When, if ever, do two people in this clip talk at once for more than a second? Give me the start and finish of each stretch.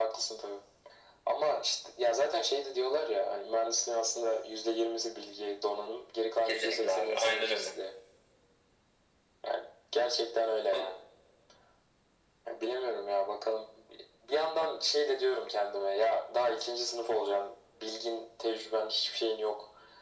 6.4-7.7

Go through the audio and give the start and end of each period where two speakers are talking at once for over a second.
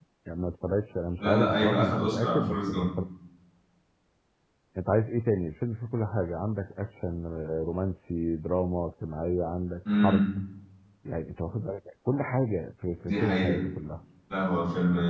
1.2-2.9

